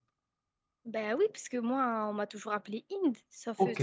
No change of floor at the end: No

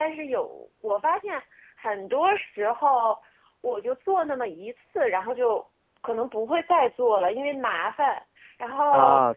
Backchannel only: Yes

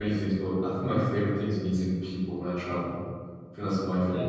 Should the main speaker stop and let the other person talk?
No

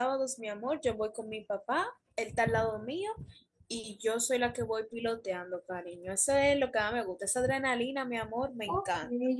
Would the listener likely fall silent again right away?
No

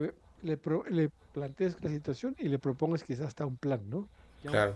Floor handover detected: No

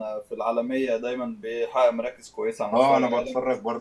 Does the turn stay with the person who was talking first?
No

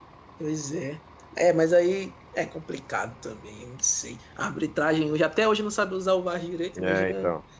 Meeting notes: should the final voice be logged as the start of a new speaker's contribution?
No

